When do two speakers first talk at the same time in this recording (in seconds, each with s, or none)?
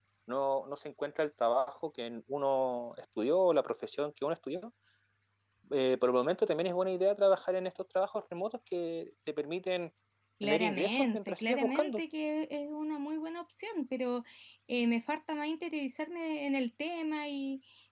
10.4 s